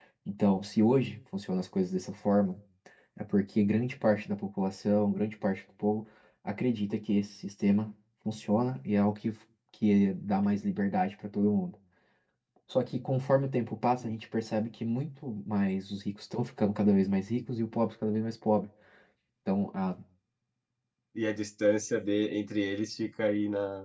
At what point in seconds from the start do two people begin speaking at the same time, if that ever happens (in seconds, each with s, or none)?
none